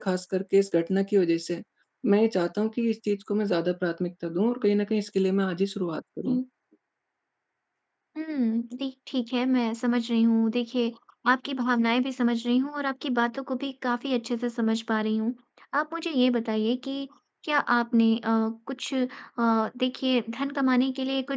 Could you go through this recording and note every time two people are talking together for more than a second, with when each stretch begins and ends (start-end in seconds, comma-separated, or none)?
none